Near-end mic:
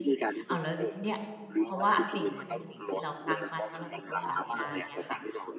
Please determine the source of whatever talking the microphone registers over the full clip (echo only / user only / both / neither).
both